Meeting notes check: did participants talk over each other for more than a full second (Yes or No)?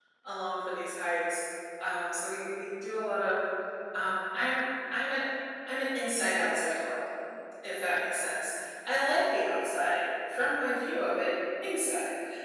No